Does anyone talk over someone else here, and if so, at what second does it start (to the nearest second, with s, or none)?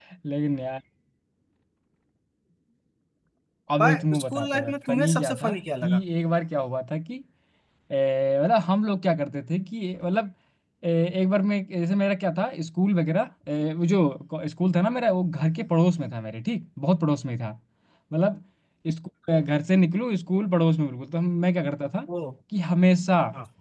4 s